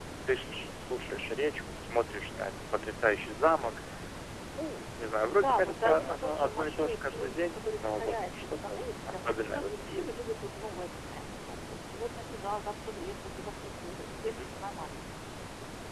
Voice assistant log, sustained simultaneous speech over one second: present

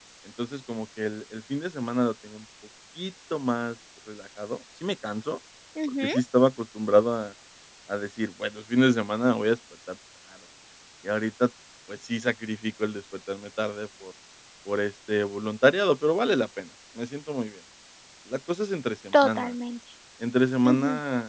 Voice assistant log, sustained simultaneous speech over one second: none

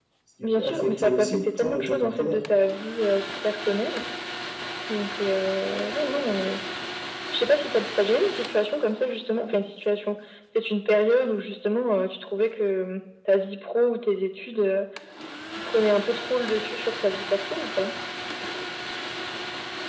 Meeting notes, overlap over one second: present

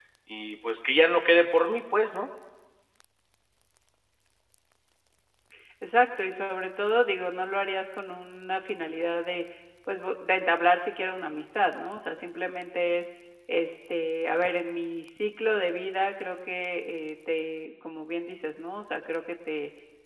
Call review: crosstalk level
none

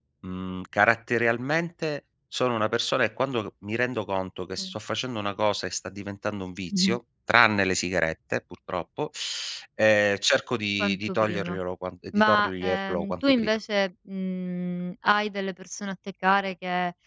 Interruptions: present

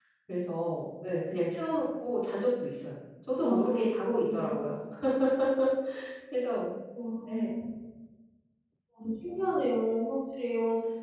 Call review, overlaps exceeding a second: present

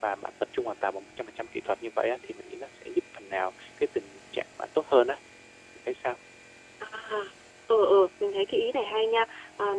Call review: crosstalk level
none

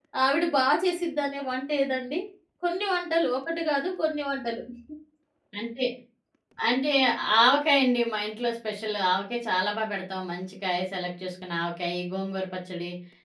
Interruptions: none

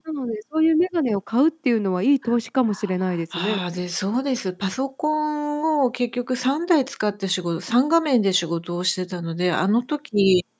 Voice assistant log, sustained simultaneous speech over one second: none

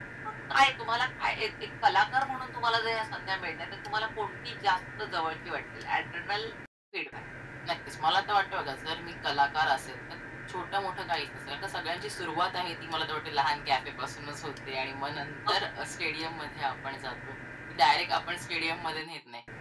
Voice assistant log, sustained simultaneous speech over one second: none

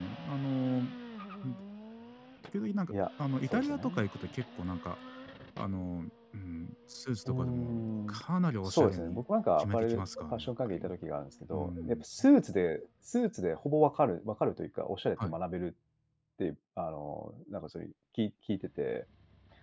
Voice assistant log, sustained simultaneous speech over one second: present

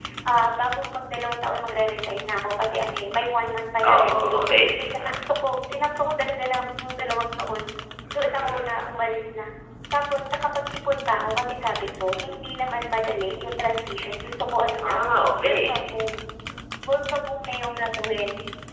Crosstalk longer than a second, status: present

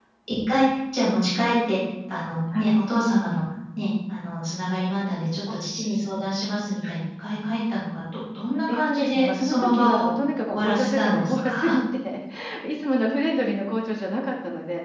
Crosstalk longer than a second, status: present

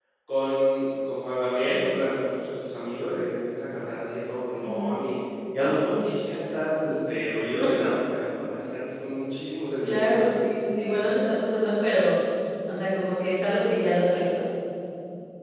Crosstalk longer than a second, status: none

